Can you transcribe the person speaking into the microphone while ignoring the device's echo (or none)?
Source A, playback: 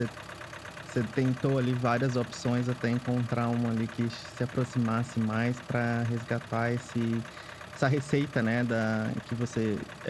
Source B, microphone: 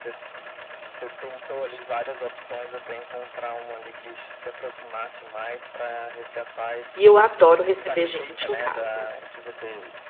E eu adoro receber gente em casa,